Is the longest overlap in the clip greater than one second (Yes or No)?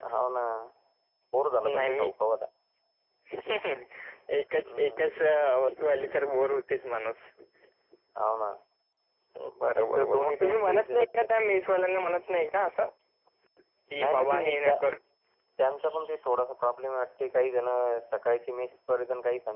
Yes